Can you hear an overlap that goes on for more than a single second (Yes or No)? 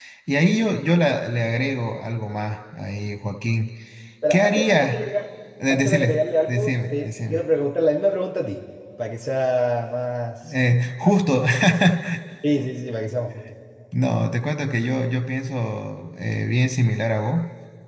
Yes